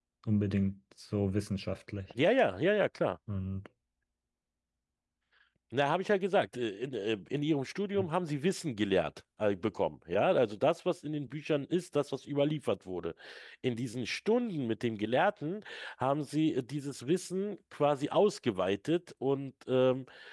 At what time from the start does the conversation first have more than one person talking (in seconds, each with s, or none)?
none